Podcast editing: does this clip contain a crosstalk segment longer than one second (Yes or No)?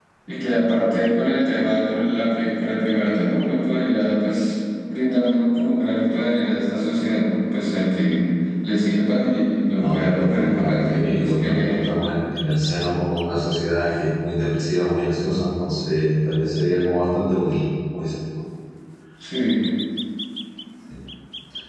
Yes